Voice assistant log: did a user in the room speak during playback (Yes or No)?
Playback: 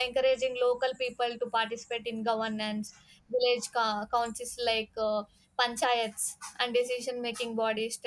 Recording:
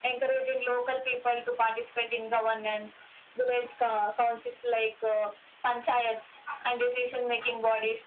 No